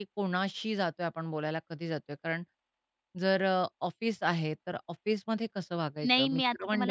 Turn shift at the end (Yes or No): Yes